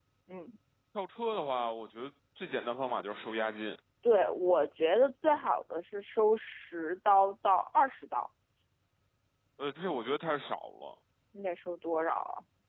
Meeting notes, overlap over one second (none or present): none